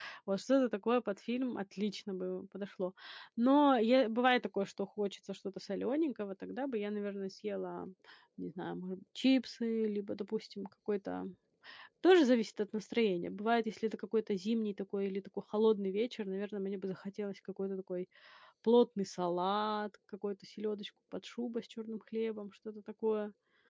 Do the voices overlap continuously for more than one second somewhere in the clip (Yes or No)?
No